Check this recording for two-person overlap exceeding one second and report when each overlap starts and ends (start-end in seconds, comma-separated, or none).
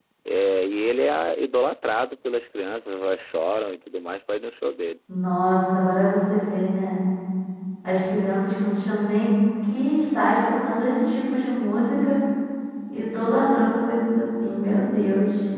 none